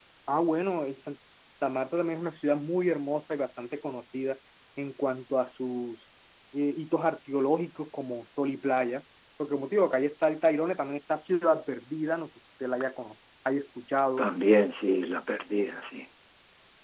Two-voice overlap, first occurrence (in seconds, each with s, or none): none